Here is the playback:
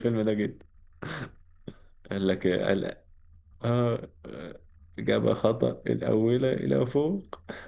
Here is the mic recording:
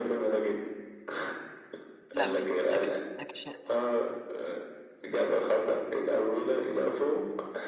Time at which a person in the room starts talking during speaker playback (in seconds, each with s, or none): 2.1 s